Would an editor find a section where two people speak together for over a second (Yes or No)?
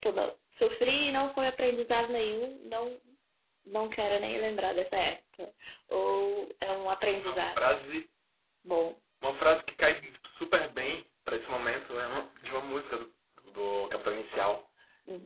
No